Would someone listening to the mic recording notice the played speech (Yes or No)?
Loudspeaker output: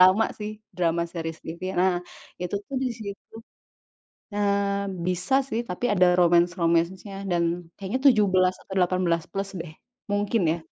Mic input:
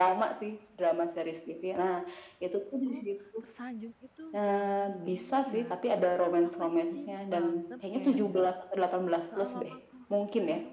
Yes